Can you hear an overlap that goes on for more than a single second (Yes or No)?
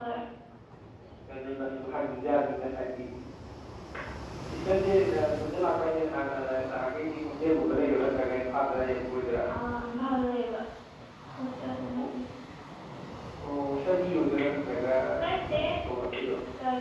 No